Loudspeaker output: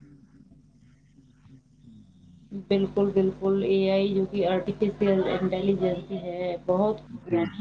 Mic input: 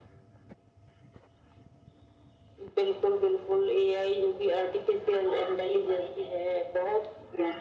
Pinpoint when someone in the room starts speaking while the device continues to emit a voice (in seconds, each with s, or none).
none